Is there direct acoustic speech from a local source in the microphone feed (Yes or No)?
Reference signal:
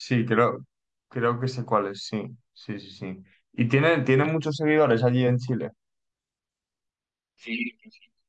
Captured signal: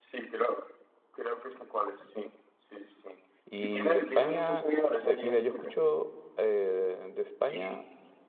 Yes